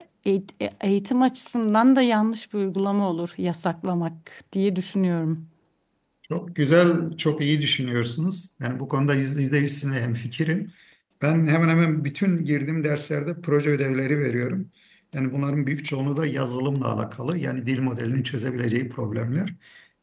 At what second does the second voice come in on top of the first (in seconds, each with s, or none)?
none